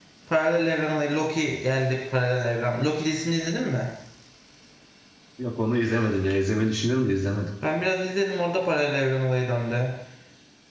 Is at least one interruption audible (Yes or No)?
No